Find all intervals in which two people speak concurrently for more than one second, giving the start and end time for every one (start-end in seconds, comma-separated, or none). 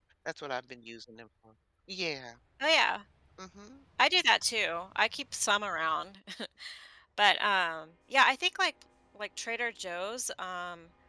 none